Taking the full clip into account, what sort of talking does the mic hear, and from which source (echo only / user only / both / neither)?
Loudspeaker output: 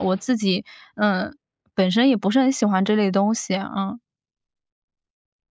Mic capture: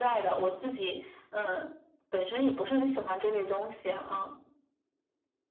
echo only